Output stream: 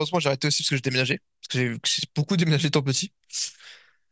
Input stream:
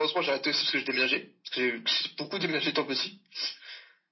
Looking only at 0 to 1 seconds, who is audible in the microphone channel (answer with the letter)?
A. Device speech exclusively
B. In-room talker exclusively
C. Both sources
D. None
A